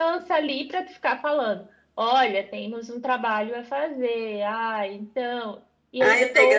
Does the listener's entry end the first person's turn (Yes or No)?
Yes